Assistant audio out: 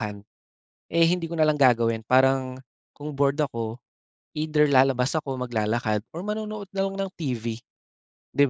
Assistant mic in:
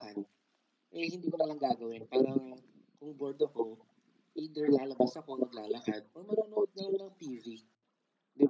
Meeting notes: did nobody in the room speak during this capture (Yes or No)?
Yes